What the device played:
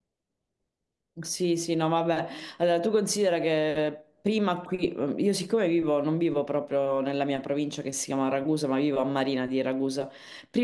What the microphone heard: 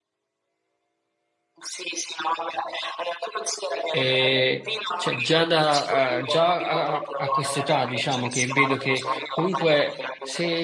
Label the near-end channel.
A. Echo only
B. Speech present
B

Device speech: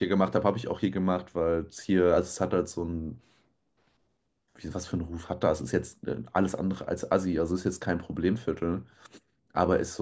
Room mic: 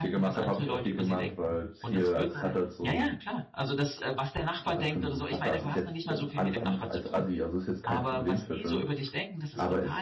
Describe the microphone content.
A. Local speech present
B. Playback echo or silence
A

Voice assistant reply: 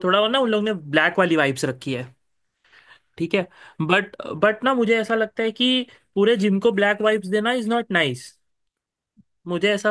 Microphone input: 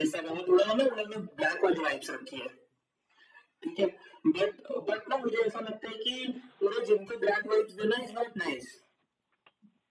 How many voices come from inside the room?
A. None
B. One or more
A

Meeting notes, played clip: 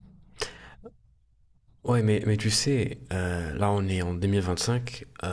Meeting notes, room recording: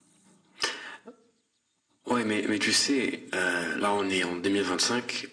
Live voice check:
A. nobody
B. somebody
A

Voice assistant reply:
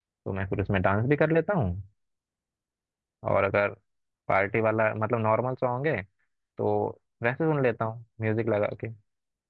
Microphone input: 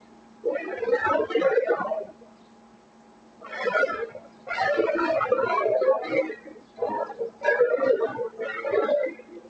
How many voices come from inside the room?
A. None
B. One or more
A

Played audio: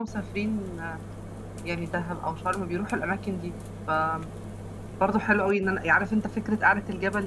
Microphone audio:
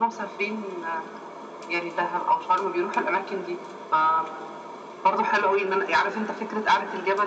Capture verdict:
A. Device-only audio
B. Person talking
A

